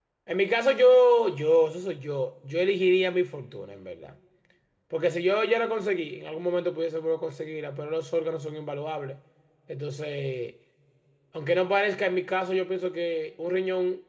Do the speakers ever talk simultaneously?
No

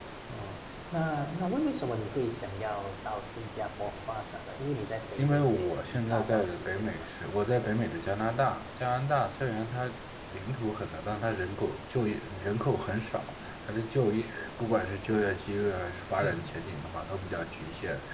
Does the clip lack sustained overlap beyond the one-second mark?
No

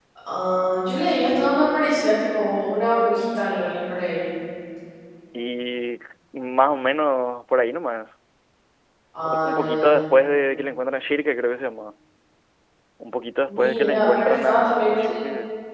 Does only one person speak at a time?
No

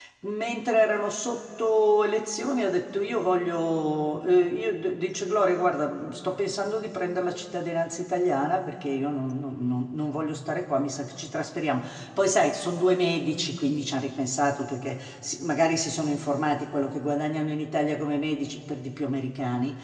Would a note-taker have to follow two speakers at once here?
No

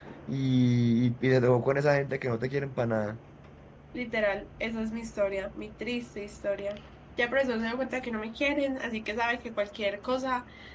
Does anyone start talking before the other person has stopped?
No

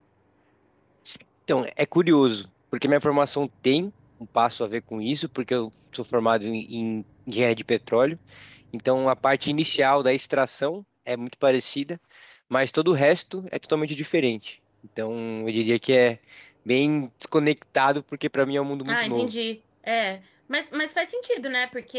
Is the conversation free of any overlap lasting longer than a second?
Yes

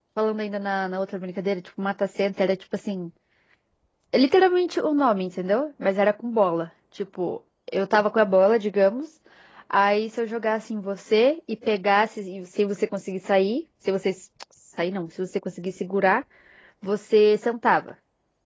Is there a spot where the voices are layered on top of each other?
No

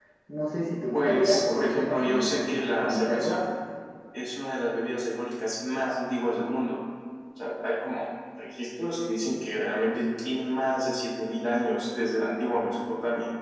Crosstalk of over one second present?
Yes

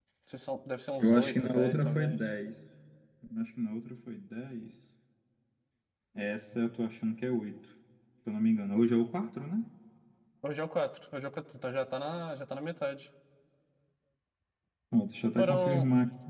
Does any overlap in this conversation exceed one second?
Yes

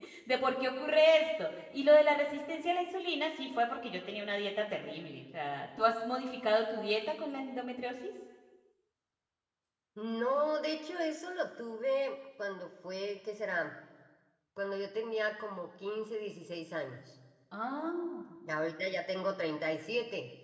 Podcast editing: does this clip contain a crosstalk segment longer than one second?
No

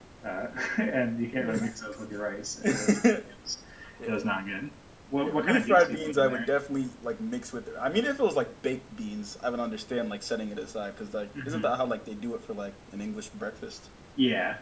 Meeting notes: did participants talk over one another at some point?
Yes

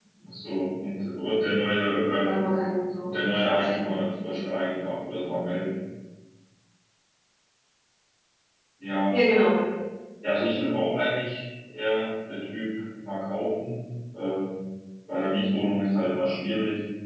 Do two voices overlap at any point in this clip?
Yes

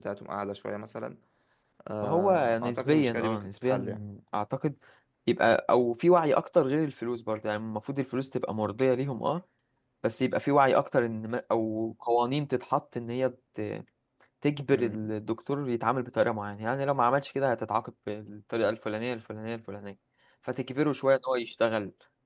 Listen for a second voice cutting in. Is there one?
Yes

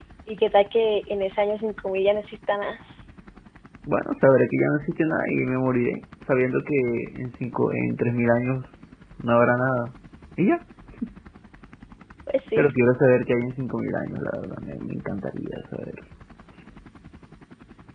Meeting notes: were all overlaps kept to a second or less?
Yes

